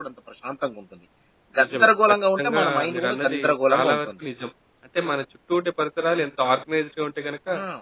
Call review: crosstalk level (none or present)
present